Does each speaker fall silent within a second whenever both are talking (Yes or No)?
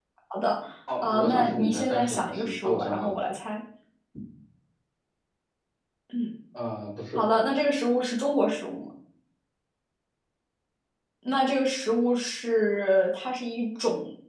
No